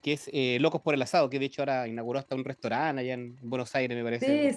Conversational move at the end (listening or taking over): taking over